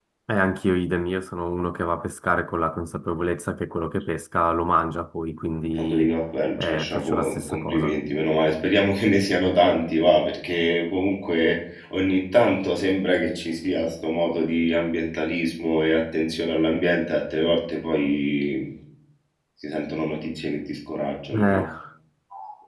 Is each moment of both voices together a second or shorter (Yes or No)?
No